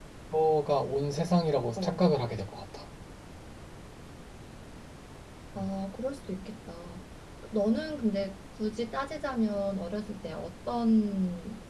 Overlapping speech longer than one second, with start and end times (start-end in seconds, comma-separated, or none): none